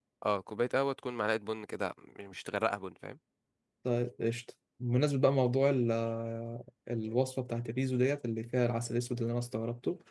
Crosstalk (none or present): none